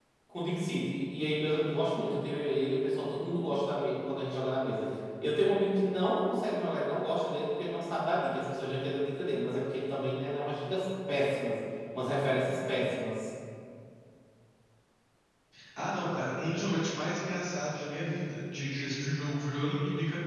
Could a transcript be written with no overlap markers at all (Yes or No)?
Yes